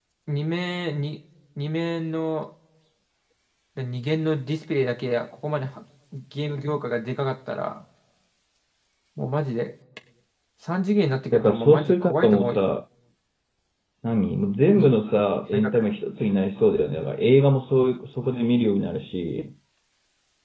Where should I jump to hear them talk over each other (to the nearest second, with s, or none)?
11 s